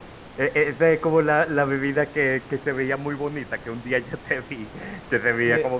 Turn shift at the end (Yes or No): No